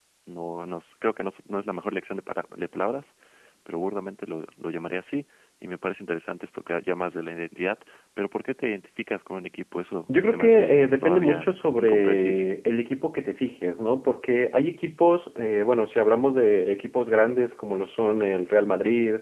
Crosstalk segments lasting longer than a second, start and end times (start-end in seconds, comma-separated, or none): 10.1-12.4